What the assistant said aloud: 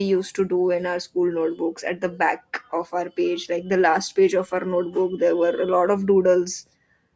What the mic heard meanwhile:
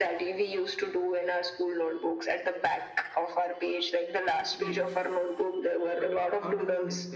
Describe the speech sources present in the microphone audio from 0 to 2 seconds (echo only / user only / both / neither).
echo only